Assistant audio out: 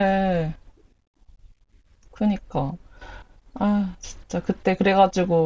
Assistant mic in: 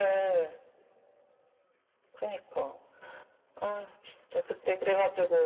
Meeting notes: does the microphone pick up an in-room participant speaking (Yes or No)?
No